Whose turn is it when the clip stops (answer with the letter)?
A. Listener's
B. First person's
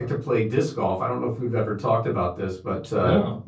B